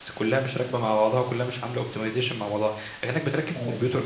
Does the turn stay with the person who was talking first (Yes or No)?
Yes